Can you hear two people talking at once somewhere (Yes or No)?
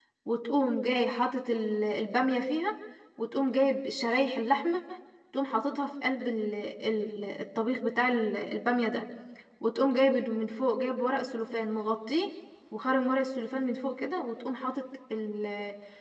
No